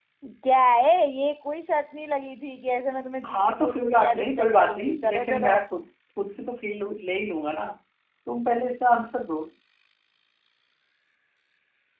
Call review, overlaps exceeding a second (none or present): present